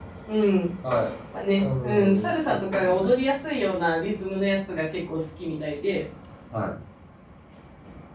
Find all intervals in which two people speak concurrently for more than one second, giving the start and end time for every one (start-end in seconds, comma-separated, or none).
1.6-3.1